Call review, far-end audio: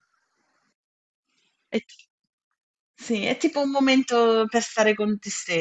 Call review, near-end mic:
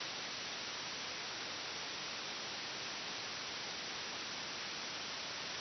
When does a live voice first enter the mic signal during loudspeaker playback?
none

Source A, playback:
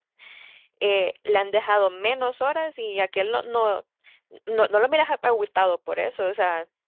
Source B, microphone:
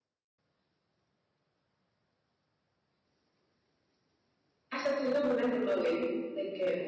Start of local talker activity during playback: 4.7 s

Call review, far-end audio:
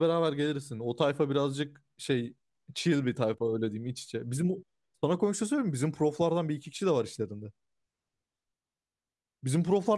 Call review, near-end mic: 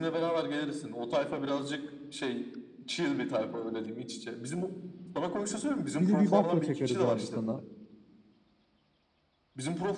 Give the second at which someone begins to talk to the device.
6.0 s

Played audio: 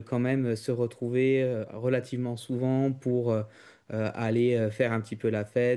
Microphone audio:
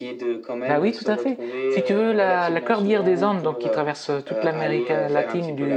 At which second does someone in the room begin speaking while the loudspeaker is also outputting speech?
0.7 s

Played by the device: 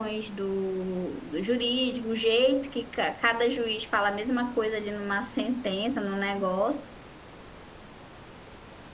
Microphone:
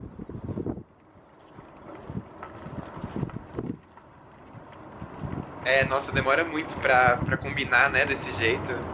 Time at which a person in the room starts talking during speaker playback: 5.6 s

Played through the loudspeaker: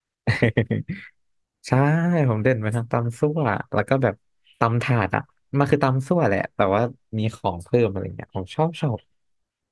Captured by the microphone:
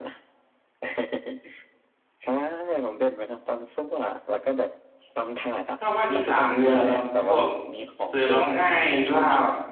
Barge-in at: 5.8 s

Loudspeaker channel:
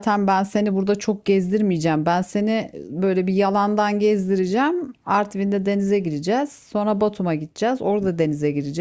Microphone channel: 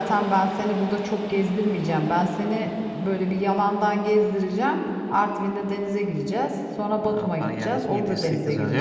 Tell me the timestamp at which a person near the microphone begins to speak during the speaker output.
7.0 s

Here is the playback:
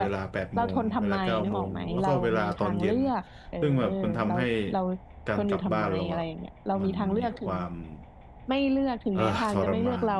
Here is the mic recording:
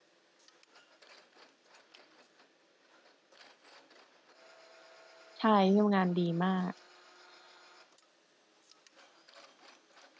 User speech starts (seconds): 5.4 s

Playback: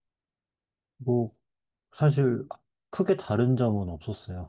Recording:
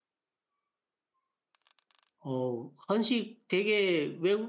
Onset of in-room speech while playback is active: 2.2 s

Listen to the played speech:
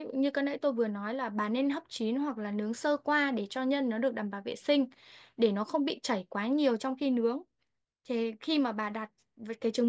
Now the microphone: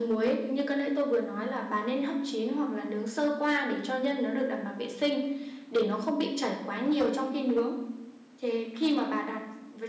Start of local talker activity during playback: none

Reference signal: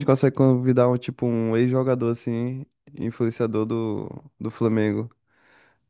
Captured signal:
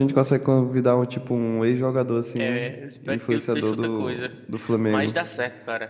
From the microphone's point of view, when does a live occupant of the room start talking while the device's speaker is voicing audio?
2.3 s

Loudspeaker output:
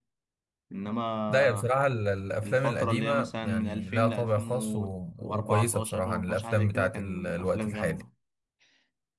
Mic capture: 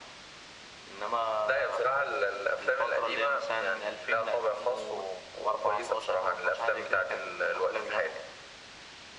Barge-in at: none

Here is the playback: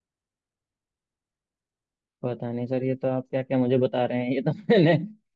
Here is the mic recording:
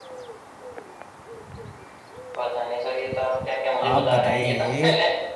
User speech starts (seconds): 3.8 s

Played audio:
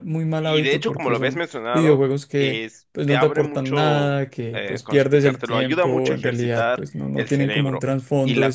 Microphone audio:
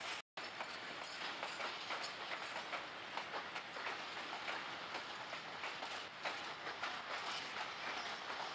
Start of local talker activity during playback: none

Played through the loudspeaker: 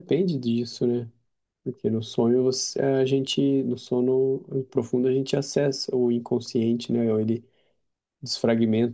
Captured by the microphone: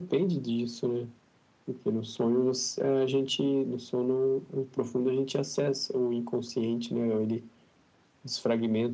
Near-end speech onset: none

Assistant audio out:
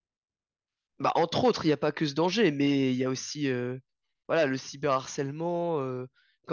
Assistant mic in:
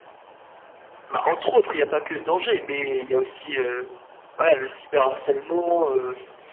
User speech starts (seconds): none

